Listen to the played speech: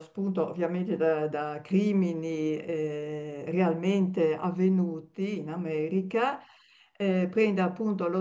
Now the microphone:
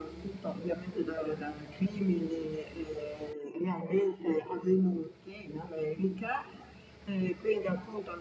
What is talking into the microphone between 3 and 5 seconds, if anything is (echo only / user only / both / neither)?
echo only